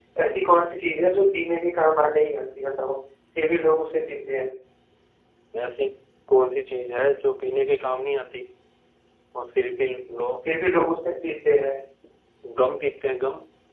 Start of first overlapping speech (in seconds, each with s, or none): none